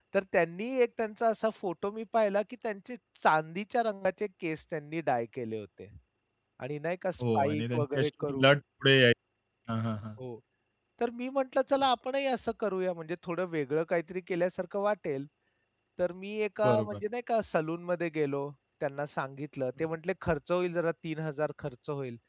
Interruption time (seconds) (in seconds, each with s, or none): 7.2 s